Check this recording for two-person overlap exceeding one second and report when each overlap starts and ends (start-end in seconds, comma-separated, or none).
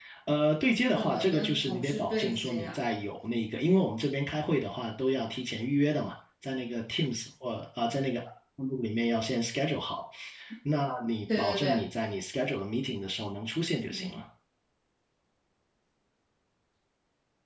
1.0-2.8